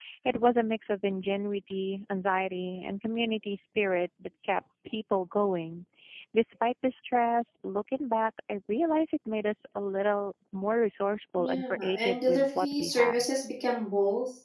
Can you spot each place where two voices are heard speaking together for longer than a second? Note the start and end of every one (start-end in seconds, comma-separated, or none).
11.4-13.2